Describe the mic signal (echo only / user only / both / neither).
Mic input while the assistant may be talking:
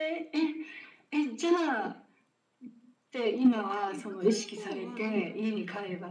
both